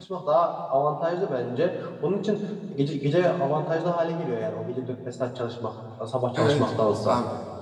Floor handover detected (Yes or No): Yes